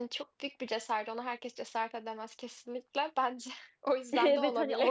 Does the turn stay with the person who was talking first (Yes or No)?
No